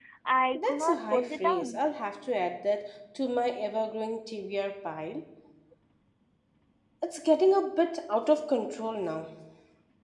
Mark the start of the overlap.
0.5 s

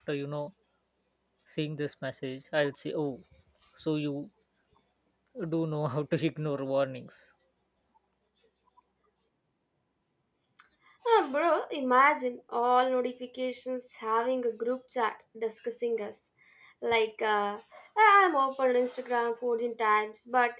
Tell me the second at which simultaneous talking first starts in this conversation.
none

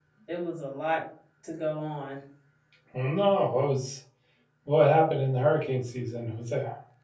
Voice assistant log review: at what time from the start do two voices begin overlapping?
none

